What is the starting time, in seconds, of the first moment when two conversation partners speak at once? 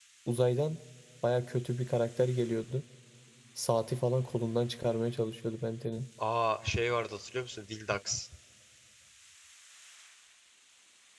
none

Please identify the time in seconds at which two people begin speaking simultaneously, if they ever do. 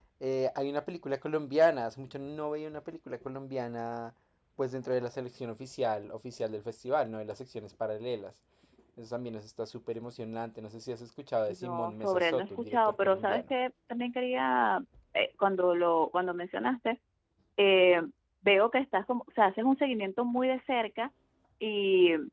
11 s

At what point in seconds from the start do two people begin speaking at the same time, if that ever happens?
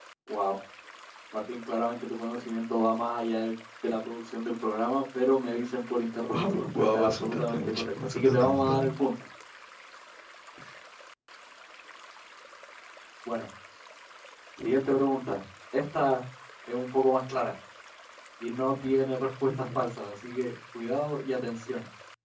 6 s

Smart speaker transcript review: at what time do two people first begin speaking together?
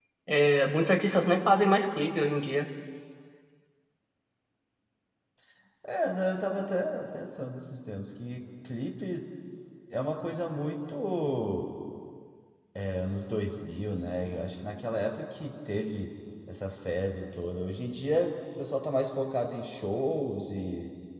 none

